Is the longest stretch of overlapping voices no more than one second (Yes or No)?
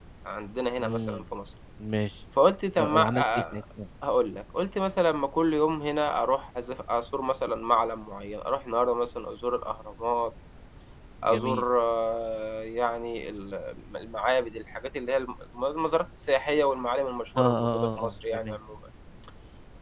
No